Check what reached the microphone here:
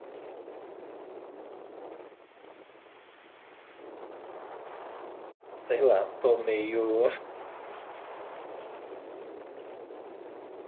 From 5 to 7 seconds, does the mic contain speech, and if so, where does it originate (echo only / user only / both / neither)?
user only